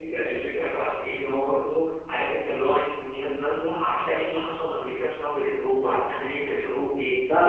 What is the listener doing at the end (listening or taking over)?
listening